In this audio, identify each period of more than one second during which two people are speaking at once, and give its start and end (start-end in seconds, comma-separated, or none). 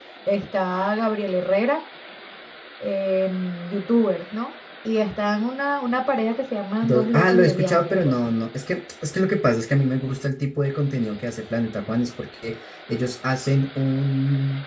6.8-8.3